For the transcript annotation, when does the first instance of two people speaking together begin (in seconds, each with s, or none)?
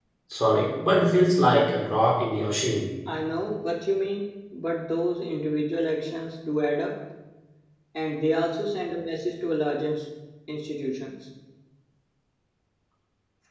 none